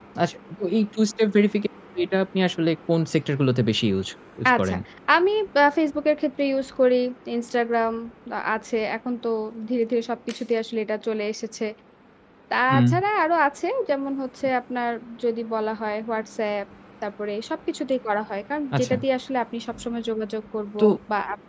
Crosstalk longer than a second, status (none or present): none